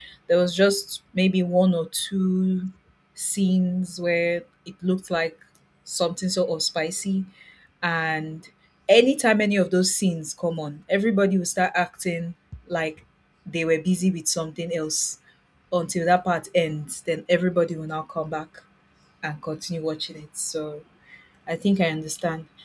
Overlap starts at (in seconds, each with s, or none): none